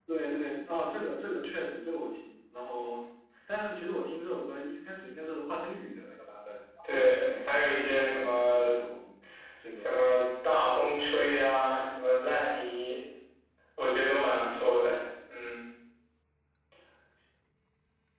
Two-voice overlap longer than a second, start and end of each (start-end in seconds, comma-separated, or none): 6.9-8.7